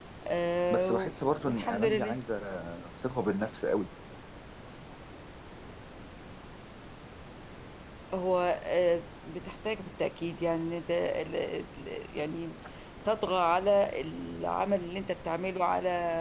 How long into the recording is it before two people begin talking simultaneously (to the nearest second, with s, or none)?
1 s